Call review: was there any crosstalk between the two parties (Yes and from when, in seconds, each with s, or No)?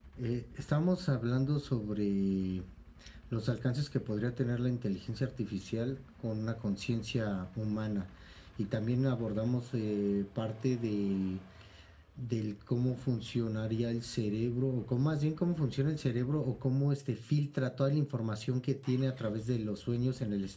No